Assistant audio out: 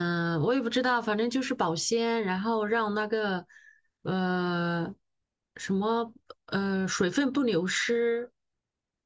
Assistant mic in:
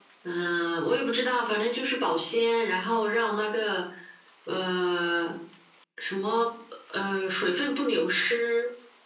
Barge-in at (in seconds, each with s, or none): none